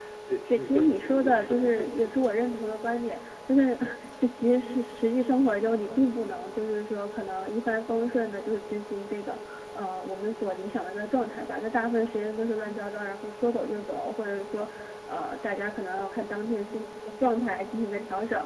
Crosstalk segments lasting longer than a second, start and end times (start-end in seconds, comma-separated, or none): 0.5-2.2